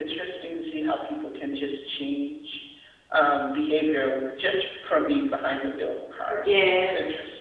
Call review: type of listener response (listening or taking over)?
taking over